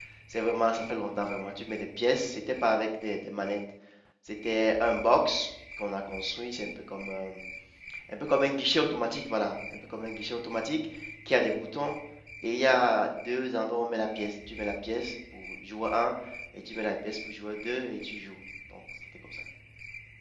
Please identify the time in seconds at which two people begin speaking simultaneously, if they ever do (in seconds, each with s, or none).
none